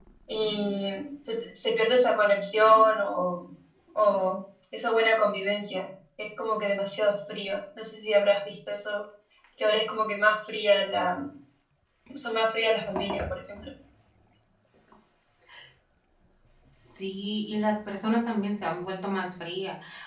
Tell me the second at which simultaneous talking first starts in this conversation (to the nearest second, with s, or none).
none